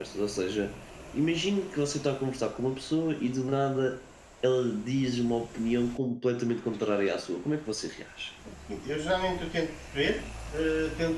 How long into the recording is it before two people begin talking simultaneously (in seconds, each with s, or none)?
none